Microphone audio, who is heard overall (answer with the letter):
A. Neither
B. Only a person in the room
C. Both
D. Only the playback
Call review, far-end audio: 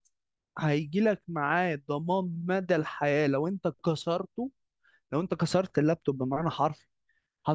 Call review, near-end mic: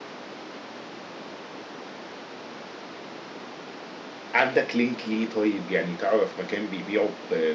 B